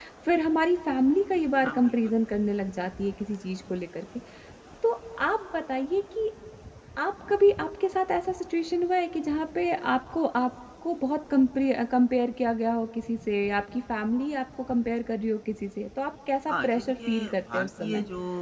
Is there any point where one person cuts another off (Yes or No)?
Yes